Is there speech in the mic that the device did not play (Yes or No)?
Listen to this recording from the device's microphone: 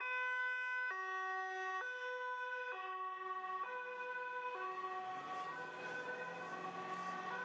No